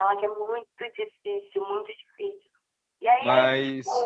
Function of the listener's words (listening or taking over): taking over